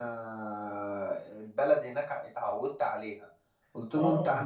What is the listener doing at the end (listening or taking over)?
listening